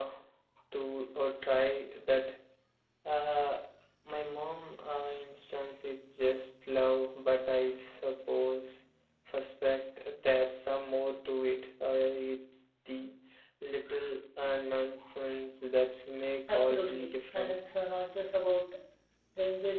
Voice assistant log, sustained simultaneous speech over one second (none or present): present